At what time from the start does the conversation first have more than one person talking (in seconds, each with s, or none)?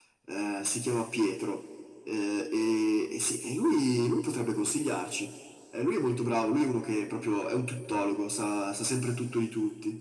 none